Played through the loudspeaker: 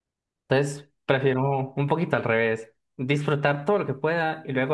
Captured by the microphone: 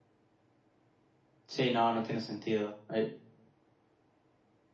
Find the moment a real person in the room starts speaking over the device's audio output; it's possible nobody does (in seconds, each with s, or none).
1.5 s